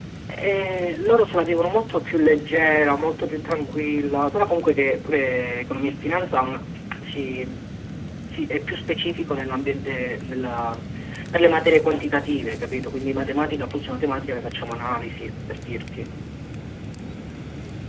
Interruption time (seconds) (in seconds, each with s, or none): none